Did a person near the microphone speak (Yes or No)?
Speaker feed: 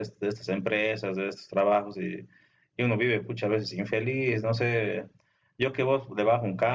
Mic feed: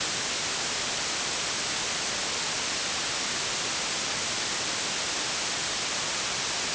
No